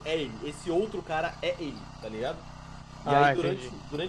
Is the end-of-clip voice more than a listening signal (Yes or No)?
No